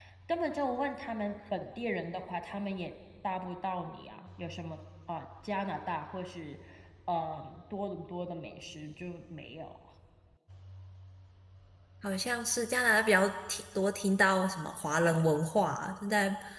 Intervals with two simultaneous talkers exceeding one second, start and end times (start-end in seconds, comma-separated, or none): none